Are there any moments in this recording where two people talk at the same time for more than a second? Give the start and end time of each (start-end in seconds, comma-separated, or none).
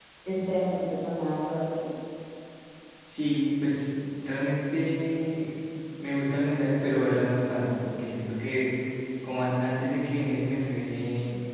none